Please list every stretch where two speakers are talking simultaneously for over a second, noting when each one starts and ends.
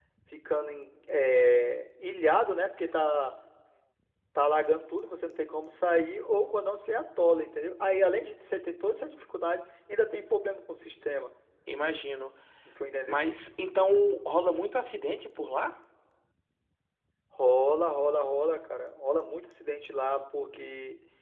none

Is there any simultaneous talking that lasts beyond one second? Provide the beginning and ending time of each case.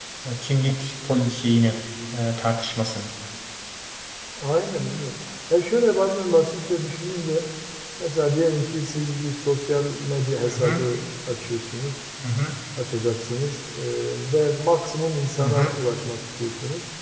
none

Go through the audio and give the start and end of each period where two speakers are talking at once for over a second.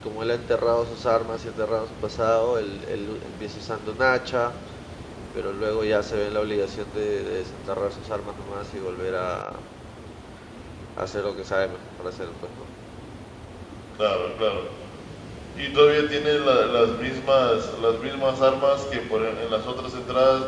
none

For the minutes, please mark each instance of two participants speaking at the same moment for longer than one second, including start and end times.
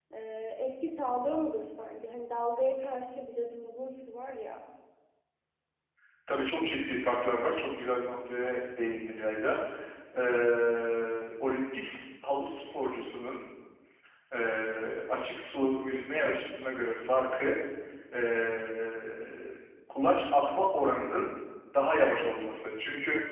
none

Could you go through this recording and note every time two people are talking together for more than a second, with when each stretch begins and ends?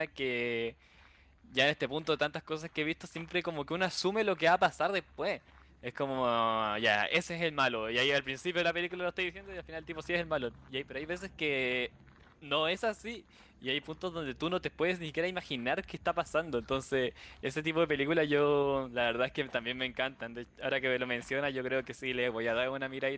none

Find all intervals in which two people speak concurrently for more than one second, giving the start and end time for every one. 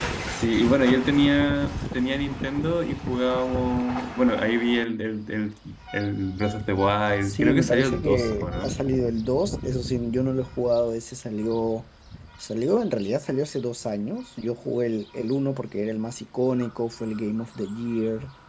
7.2-8.8

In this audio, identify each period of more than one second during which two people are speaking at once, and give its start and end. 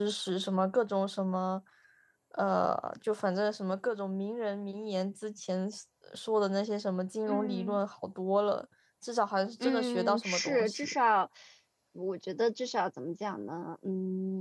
9.6-10.9

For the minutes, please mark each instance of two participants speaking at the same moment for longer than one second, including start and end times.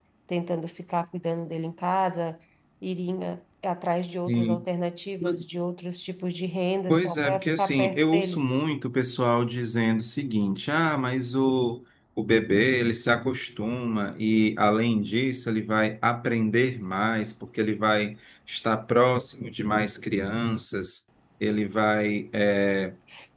6.9-8.6

